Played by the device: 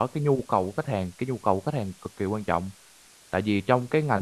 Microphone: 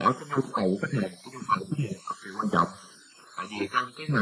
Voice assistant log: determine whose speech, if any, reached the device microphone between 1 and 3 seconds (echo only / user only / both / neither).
echo only